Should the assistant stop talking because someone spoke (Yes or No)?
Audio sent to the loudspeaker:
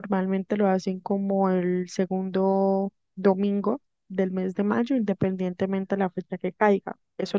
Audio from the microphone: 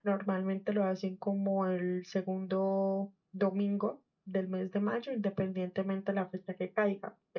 No